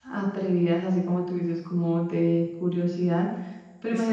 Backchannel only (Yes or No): Yes